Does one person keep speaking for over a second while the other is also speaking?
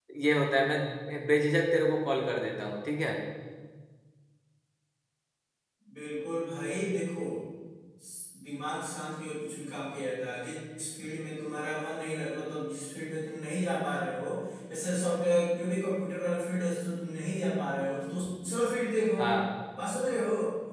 No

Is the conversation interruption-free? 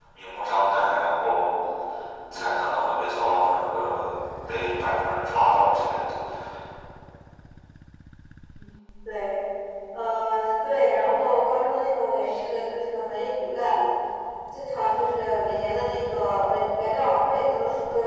Yes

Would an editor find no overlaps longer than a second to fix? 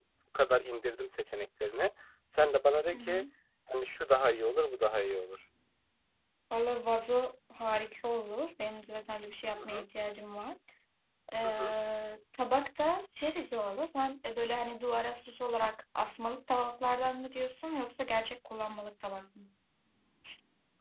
Yes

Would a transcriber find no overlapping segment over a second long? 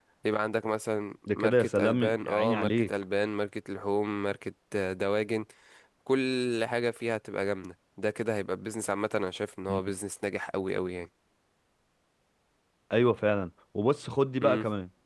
No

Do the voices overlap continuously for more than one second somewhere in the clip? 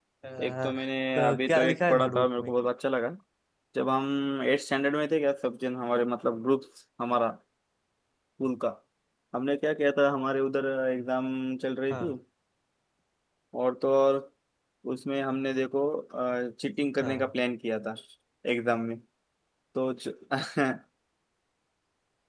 Yes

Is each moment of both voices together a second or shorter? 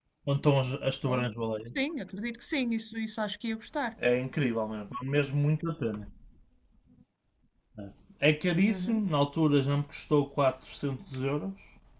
Yes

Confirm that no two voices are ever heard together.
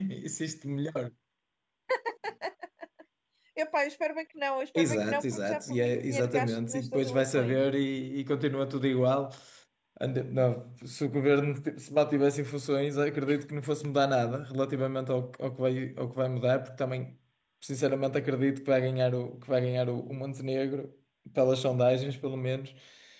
No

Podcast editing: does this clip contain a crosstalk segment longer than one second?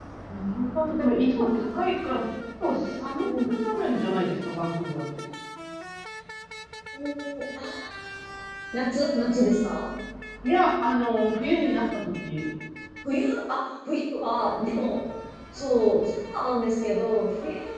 No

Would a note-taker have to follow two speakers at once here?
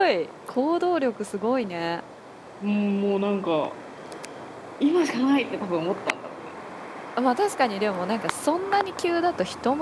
No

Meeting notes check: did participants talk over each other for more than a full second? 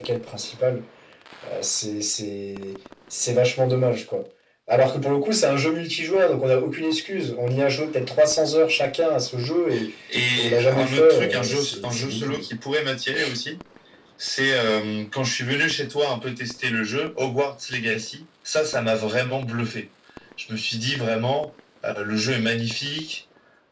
Yes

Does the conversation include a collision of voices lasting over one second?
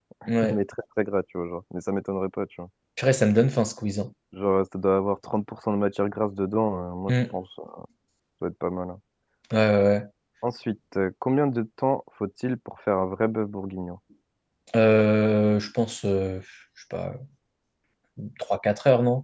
No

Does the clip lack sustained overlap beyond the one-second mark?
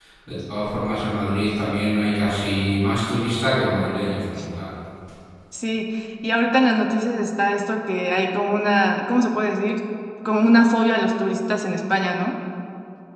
Yes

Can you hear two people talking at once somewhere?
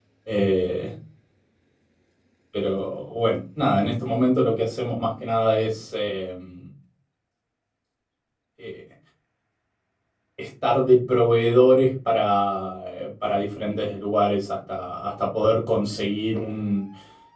No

